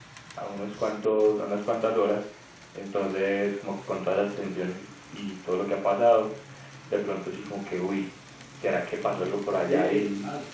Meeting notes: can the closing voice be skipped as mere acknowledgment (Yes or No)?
No